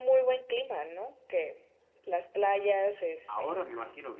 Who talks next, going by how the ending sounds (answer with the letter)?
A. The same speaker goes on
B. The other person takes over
B